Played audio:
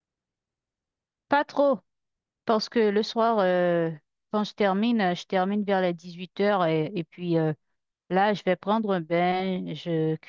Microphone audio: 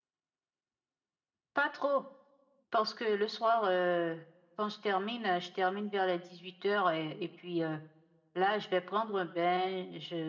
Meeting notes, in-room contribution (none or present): none